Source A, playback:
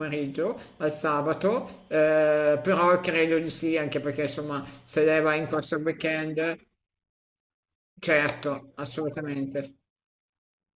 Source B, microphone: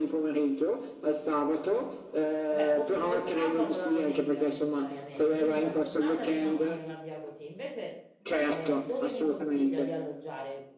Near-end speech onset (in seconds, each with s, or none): 2.5 s